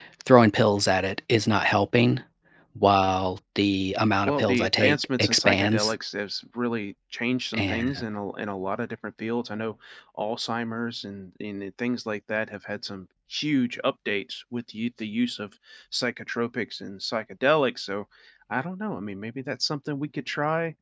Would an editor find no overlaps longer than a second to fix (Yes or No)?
No